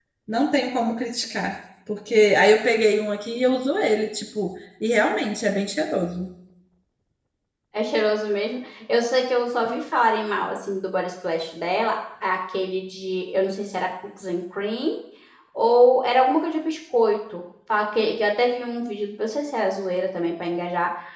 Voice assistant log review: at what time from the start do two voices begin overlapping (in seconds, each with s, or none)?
none